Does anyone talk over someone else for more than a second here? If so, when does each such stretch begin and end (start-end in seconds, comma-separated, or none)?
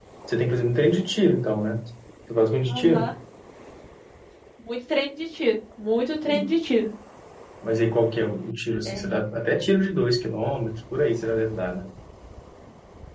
none